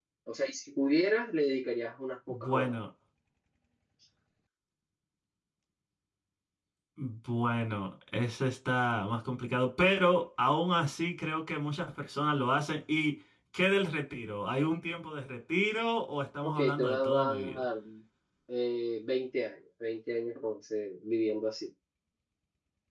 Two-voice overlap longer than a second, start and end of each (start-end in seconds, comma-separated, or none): 16.4-17.6